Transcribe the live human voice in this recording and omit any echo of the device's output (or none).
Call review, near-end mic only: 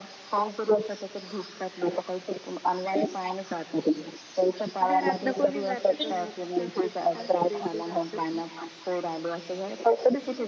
घरात न कोणी जात का मग सासू सासरे किंवा असं कोणी?